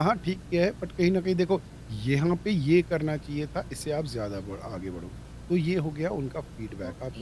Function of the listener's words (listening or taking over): listening